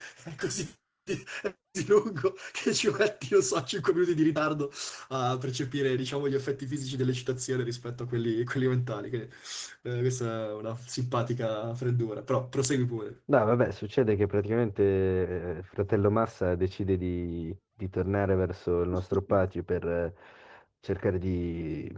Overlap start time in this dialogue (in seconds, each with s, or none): none